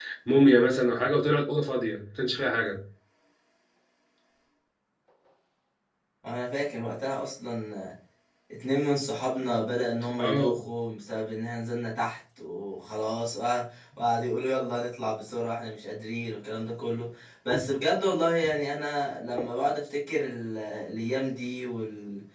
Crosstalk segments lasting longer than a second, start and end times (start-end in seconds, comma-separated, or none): none